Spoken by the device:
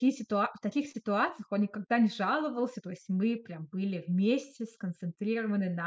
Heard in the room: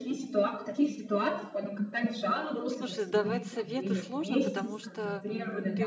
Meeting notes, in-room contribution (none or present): present